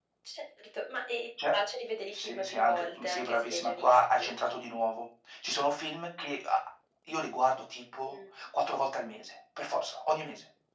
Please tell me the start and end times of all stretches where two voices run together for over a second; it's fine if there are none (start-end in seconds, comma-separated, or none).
2.1-4.3